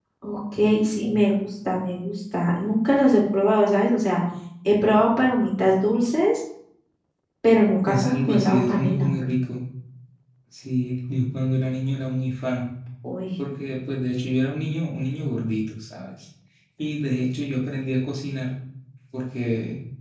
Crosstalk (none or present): present